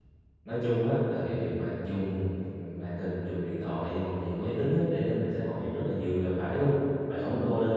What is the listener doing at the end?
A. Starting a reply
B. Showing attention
B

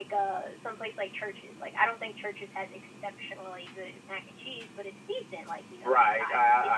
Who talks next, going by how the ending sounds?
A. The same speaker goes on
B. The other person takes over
B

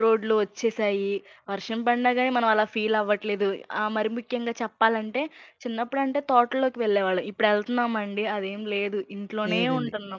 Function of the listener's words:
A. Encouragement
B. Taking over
A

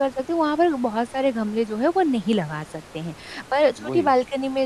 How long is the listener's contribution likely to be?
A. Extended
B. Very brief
B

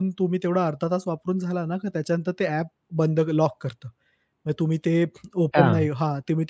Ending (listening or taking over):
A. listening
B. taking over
A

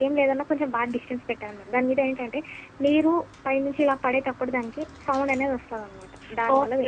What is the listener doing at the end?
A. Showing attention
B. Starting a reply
B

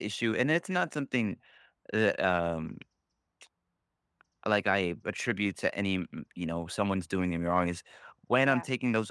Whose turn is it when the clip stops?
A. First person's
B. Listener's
A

